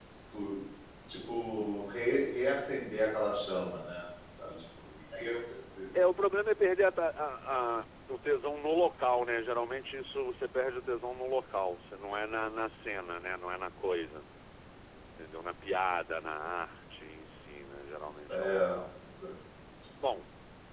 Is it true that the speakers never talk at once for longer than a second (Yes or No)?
Yes